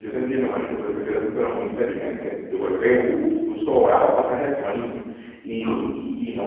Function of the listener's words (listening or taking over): listening